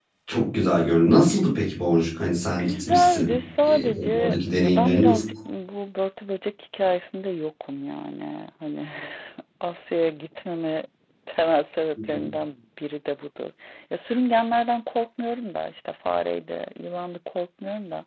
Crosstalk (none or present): present